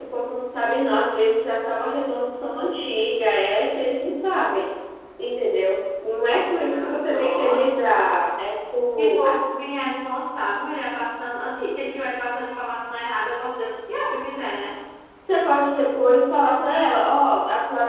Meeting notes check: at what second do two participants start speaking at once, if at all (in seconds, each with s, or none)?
6.7 s